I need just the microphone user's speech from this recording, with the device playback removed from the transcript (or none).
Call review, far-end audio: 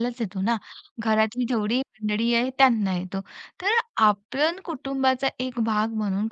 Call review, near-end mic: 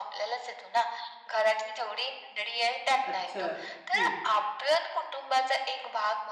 अच्छा. हं,